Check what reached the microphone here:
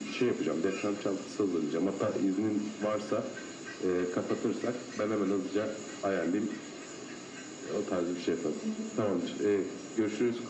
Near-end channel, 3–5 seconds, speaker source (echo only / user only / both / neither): echo only